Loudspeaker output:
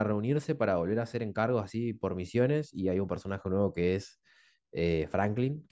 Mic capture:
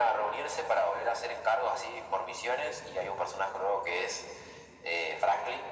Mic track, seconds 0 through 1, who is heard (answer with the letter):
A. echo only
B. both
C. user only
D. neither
A